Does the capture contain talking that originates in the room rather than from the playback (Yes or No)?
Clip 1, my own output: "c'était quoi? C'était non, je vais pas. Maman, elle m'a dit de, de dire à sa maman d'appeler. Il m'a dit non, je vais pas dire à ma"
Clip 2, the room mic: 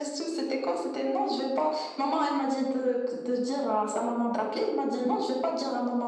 No